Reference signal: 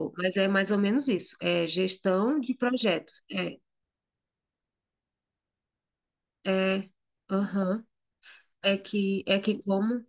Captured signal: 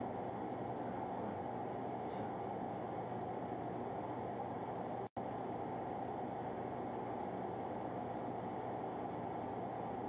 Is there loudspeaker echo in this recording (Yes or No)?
No